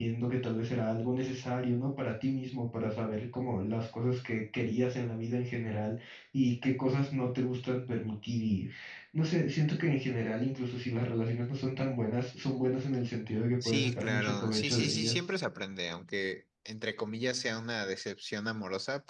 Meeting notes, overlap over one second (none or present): present